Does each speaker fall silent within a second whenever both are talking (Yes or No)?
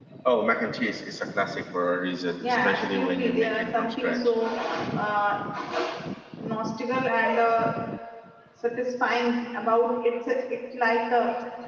No